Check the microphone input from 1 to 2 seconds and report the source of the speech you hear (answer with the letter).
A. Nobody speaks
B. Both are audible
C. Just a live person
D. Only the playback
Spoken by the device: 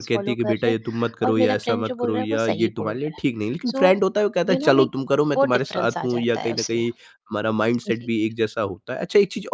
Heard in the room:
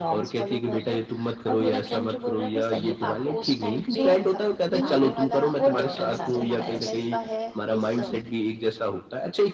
D